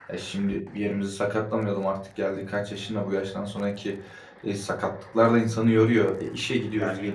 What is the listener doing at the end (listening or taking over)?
taking over